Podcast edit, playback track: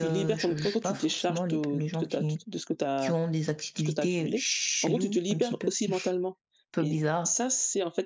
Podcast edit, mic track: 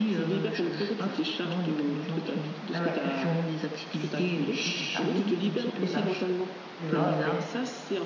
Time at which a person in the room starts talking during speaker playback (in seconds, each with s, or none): 2.7 s